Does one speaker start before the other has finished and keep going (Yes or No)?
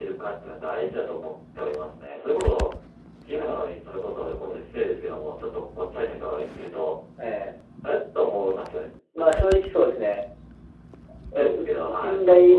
Yes